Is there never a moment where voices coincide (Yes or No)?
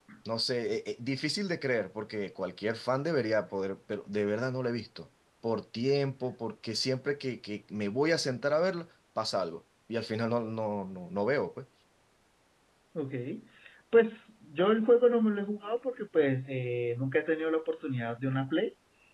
Yes